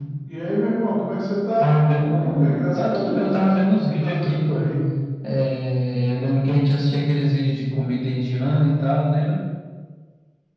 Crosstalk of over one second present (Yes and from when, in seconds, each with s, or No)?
Yes, from 1.6 s